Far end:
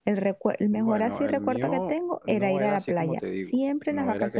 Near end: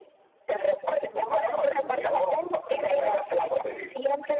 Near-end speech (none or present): none